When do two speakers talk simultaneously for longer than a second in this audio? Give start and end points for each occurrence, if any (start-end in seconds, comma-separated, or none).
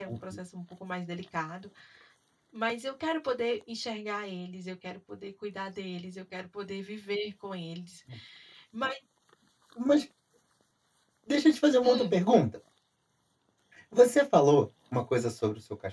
none